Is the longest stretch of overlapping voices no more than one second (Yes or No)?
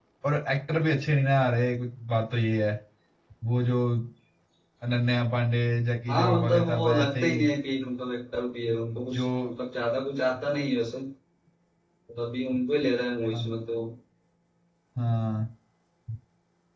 No